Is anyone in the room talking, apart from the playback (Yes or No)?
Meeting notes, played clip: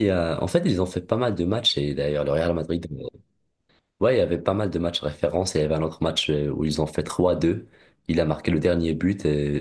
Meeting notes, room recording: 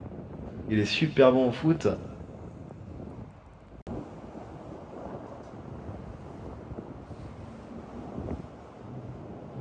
Yes